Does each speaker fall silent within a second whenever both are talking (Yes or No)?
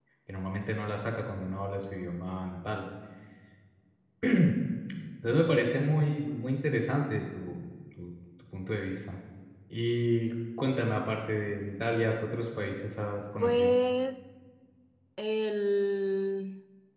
Yes